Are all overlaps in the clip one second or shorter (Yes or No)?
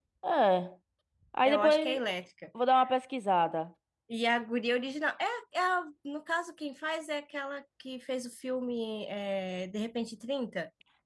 Yes